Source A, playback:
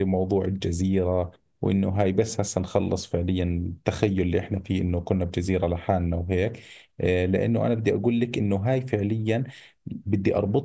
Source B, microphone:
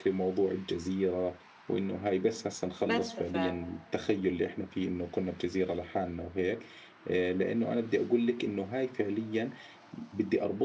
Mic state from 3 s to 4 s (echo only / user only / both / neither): both